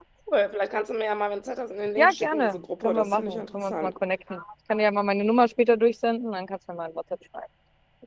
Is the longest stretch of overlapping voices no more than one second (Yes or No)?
No